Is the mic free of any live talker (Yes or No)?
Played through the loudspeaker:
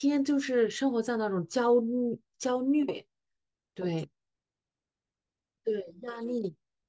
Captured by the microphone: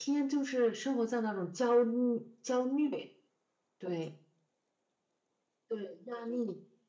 Yes